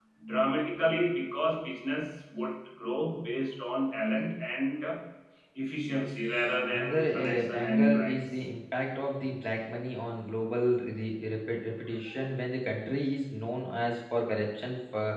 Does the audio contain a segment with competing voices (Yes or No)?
Yes